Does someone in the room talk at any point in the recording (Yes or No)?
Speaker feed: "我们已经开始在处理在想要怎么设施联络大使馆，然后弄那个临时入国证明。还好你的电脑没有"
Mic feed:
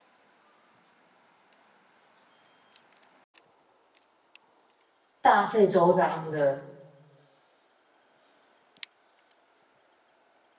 Yes